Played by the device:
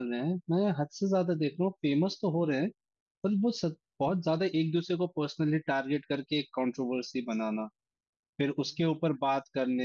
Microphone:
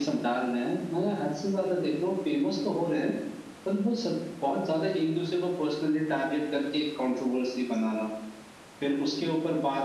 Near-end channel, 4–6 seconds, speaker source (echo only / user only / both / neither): echo only